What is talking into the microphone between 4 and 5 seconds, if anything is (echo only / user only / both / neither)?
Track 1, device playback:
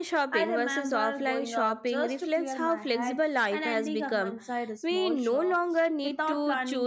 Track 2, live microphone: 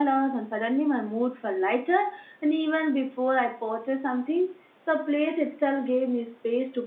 user only